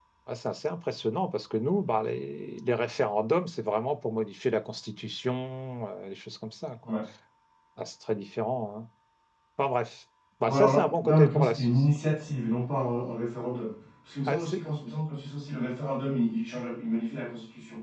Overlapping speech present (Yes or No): Yes